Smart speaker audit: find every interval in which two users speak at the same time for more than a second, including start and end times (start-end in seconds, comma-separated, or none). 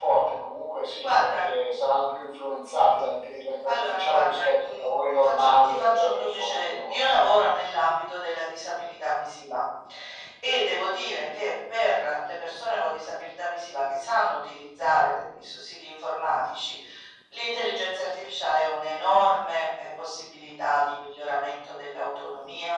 3.6-7.0